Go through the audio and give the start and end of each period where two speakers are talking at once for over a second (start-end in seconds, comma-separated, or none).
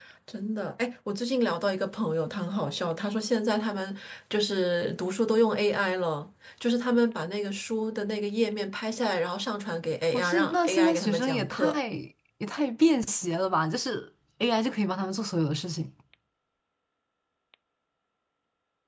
10.1-11.8